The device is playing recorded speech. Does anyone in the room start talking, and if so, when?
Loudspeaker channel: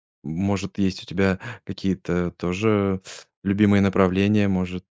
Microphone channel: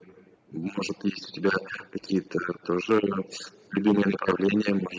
none

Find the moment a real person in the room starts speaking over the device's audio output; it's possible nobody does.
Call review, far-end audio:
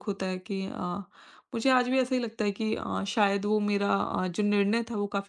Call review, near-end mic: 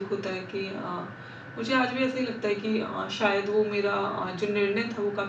none

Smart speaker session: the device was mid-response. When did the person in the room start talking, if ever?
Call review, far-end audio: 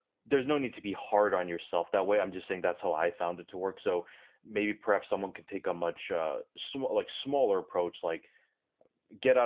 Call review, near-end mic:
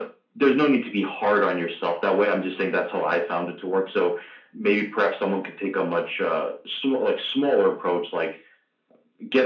none

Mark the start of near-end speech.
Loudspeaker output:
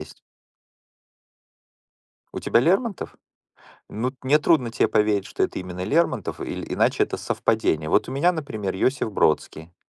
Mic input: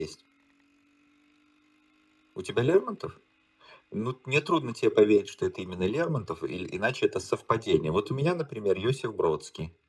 none

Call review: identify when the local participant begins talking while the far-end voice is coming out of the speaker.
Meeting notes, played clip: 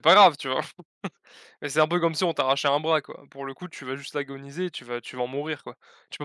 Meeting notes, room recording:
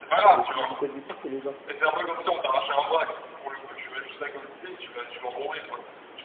0.4 s

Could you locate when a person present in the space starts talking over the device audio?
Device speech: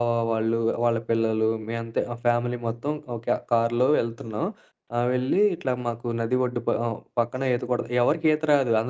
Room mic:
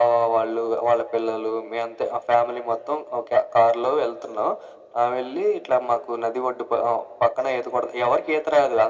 none

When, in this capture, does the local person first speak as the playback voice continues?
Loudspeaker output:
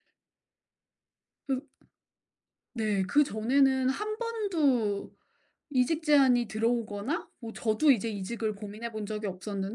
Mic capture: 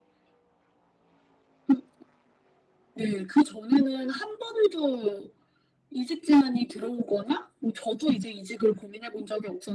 none

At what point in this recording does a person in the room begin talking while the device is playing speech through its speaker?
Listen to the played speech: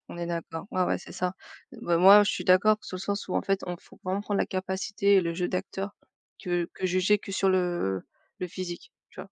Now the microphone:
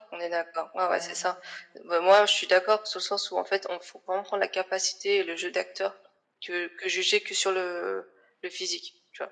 0.8 s

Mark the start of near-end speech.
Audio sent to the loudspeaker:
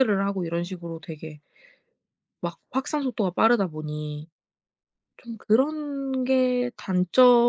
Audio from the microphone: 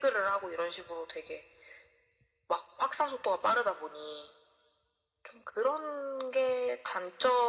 none

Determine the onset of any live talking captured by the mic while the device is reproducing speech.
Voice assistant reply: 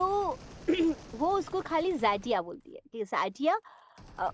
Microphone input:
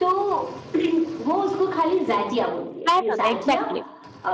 2.8 s

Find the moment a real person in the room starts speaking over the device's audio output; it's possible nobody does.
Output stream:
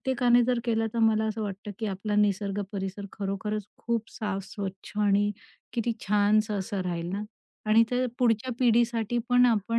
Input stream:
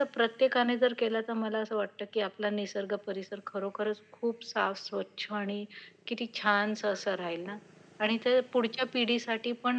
none

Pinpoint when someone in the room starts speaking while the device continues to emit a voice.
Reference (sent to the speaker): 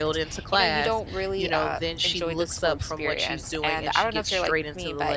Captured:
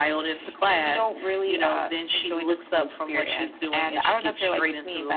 none

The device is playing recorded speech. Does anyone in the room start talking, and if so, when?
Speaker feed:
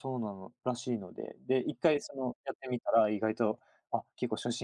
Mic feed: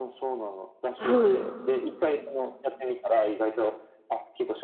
1.0 s

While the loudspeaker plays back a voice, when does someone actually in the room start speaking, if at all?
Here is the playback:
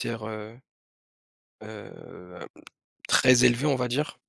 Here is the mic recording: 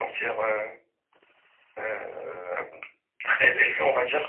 none

